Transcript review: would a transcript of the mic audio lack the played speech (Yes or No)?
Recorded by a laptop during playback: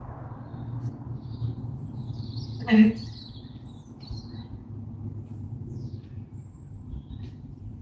Yes